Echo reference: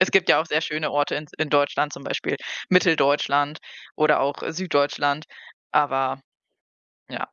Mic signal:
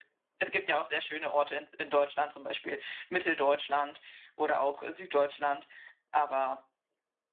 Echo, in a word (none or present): present